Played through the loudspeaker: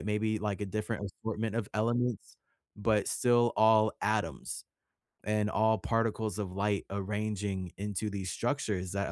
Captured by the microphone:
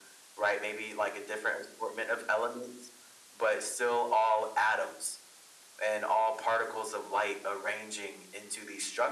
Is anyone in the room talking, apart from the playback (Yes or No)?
No